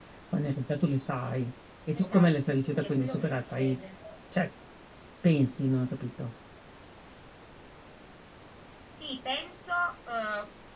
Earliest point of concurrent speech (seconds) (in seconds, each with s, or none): 1.9 s